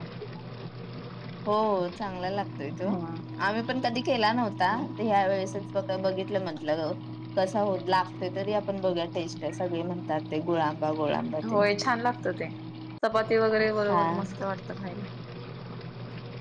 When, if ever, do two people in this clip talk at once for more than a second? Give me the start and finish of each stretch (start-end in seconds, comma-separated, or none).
none